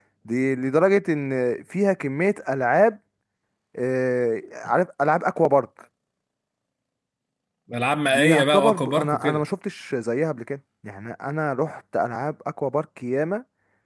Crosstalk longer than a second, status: present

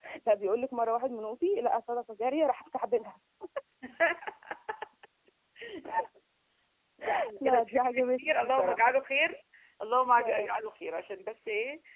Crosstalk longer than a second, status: present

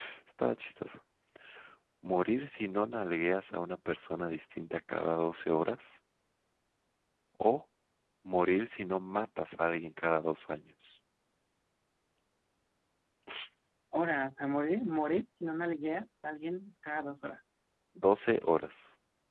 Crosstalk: none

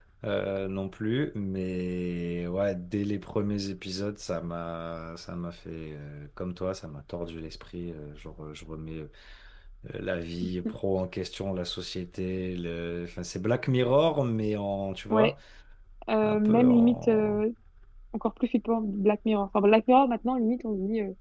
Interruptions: present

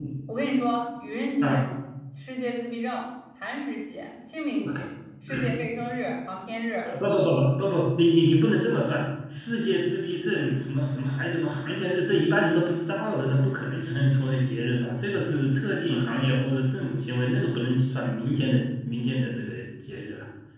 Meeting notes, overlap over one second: none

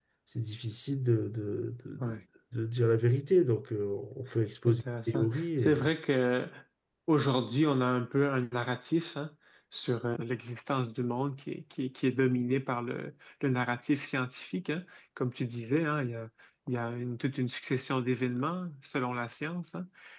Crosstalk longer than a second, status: present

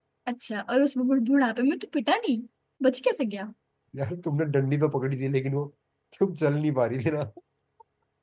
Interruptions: none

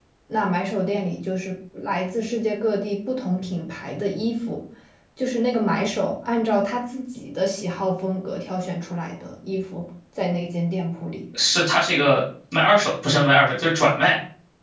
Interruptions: none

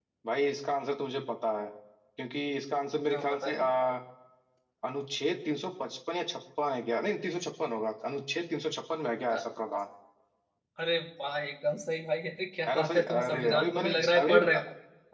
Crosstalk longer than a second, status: present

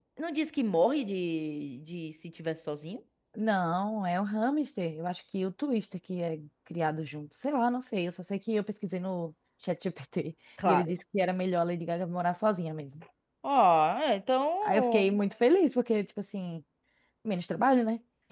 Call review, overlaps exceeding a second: none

